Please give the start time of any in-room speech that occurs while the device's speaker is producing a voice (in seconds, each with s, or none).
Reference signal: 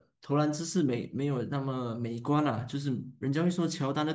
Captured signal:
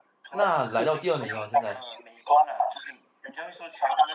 0.3 s